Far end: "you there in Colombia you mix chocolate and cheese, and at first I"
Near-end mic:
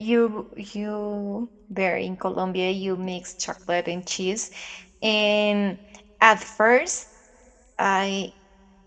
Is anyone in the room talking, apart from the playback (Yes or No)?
No